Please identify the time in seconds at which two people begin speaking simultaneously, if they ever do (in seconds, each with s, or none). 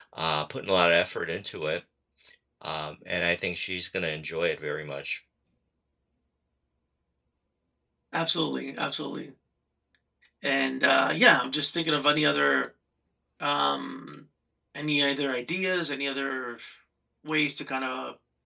none